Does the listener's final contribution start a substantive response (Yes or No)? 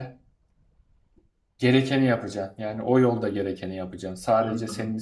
No